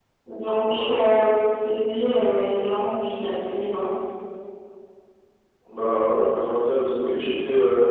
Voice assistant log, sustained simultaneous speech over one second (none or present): none